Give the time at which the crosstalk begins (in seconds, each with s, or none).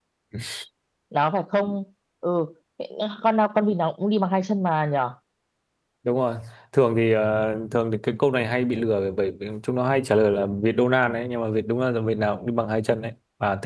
none